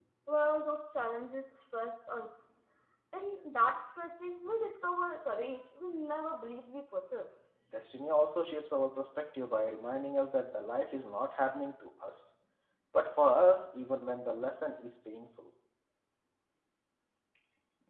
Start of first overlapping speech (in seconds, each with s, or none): none